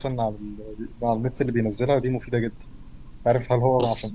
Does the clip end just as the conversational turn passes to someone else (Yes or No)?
No